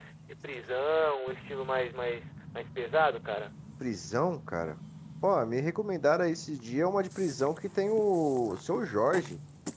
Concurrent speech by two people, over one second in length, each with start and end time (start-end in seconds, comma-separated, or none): none